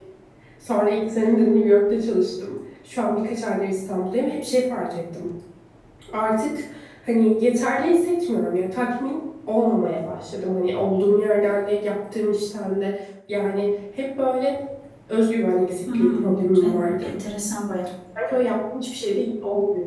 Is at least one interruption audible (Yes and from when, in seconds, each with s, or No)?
Yes, from 15.9 s